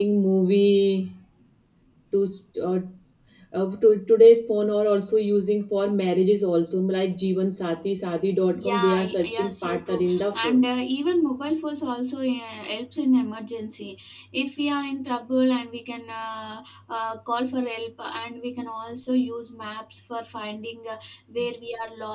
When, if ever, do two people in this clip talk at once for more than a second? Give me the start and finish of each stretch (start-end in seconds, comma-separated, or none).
8.6-10.8